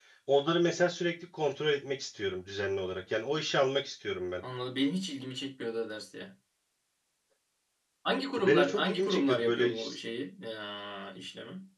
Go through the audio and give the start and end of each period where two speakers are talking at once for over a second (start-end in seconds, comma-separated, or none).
8.4-10.0